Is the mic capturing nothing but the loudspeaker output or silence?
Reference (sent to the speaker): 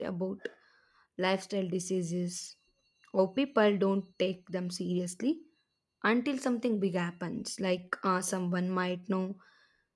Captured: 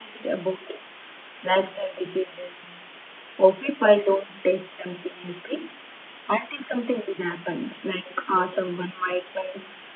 Yes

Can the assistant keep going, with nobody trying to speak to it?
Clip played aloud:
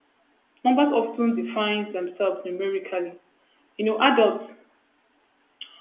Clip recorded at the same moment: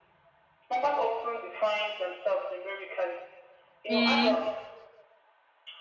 No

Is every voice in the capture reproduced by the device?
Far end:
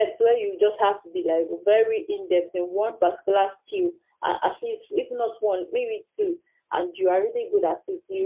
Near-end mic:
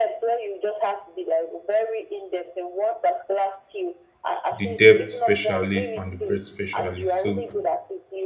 No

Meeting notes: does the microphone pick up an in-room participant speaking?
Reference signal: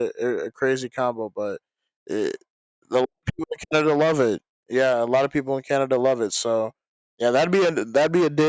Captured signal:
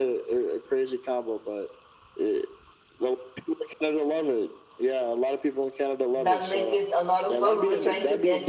Yes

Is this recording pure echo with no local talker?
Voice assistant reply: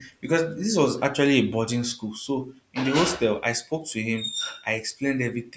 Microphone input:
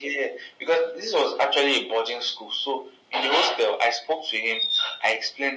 Yes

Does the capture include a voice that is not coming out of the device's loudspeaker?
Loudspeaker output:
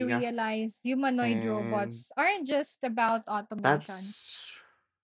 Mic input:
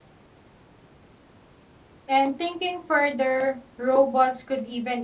Yes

